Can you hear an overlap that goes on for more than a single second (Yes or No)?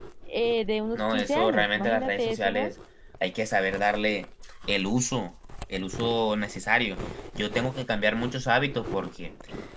Yes